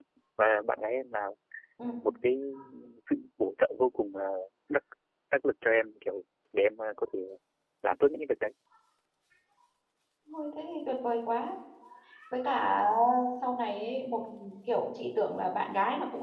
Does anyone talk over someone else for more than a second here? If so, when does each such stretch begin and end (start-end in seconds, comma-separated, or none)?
none